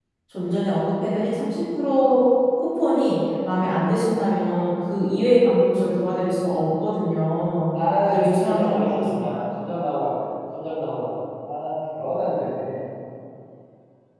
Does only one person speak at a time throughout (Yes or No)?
No